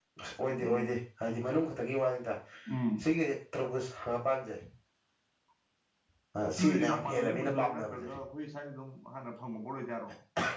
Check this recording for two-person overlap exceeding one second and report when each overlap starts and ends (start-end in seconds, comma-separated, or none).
6.6-8.1